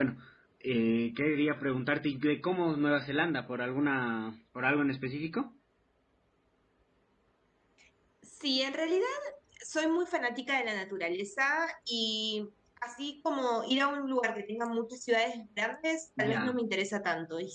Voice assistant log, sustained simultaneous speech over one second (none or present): none